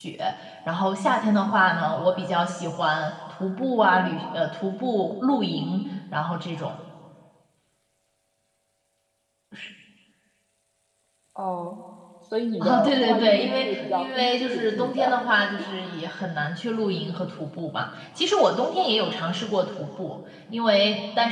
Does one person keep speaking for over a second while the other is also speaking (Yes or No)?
Yes